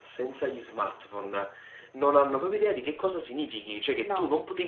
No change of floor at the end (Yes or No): Yes